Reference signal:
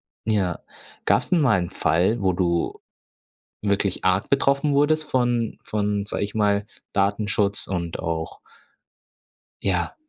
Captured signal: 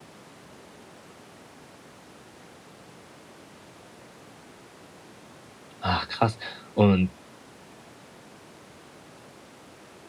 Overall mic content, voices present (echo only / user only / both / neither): user only